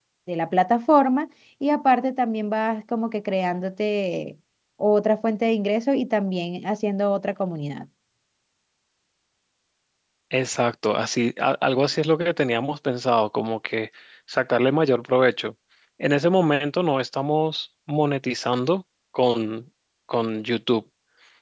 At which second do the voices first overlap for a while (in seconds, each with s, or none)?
none